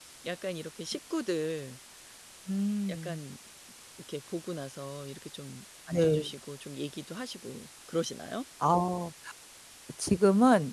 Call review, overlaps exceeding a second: none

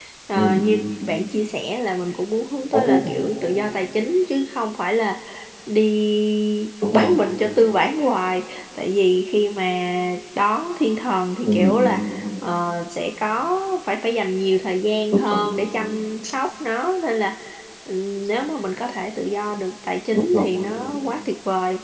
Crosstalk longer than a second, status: none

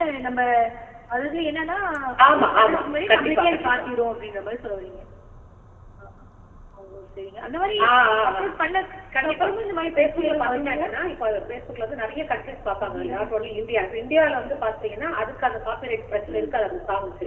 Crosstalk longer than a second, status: present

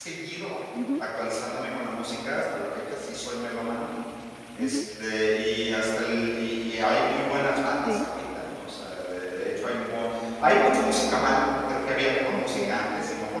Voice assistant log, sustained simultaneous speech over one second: none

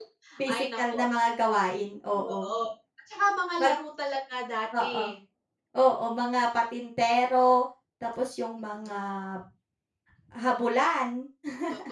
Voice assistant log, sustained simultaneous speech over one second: none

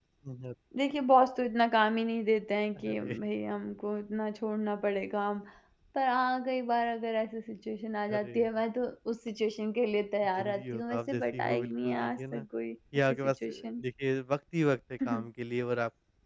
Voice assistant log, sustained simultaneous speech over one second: present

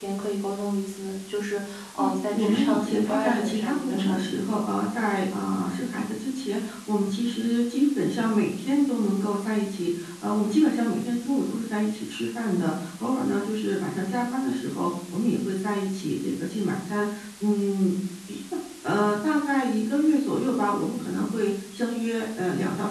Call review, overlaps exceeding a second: present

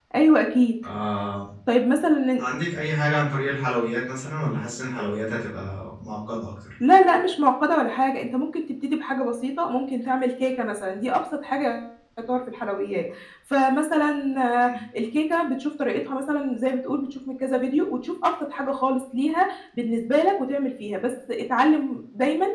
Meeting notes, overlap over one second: none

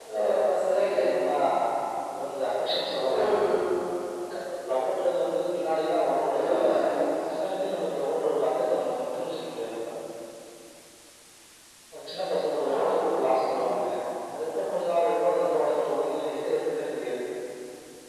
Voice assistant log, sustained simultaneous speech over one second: none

